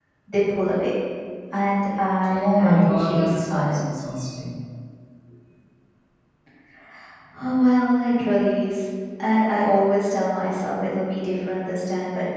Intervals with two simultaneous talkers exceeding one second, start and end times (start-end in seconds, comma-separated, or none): 2.3-3.8